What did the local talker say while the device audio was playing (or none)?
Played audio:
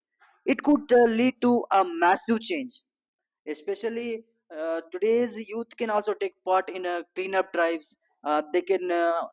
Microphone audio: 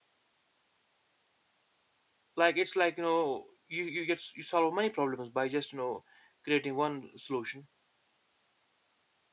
like it's like you know you you get you solve many problems by just you know creating one solution